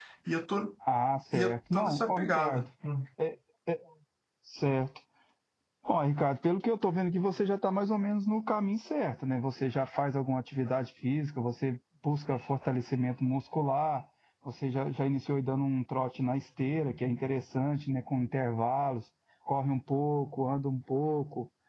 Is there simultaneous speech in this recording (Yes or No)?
Yes